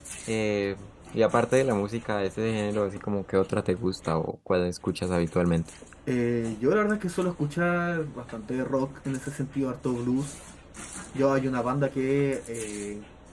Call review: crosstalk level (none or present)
none